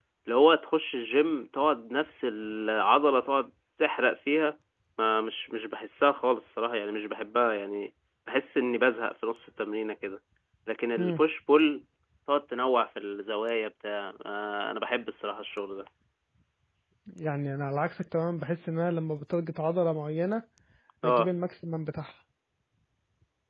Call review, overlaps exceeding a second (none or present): none